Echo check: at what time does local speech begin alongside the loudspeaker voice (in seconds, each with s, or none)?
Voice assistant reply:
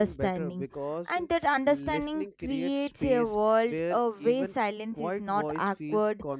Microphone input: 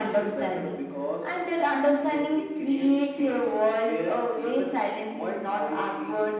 none